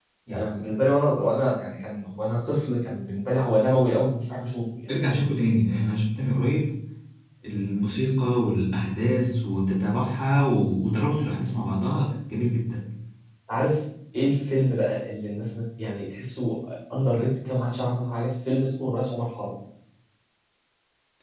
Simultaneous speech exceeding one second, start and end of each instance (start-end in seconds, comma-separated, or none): none